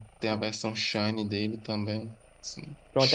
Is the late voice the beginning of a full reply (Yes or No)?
Yes